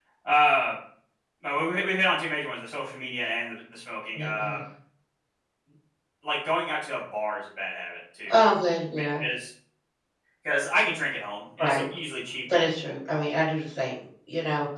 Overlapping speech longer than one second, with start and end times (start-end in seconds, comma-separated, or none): none